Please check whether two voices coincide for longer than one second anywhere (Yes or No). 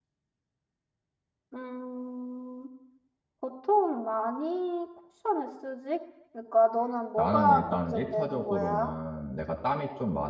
Yes